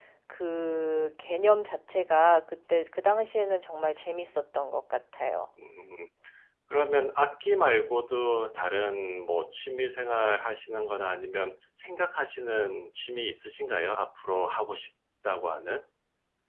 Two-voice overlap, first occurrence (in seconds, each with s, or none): none